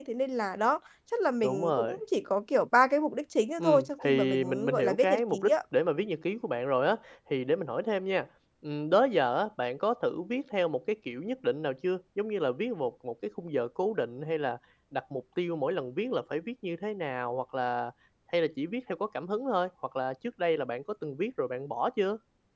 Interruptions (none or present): present